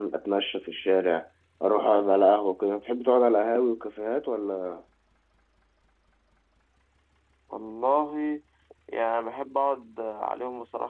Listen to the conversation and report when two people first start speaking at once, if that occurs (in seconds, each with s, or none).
none